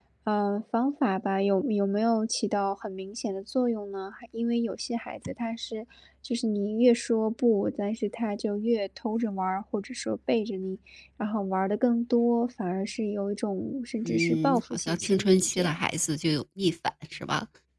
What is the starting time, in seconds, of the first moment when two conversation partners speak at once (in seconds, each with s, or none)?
14.0 s